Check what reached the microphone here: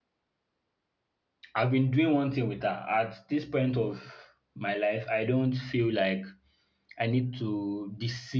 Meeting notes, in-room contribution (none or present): present